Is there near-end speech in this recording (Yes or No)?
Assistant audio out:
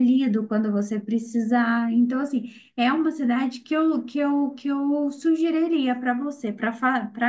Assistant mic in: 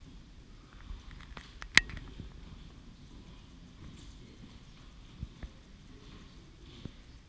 No